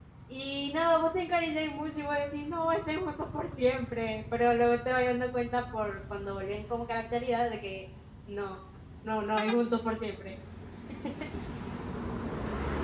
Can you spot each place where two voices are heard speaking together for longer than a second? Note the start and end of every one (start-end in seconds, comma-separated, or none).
none